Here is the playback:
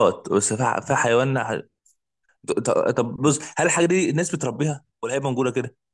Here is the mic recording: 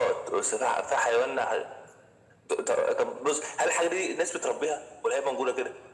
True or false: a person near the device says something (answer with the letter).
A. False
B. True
A